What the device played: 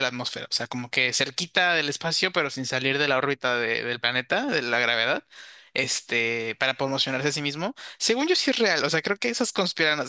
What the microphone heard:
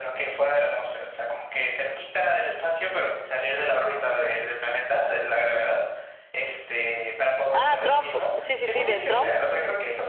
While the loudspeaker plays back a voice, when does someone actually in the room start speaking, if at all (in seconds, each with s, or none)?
7.5 s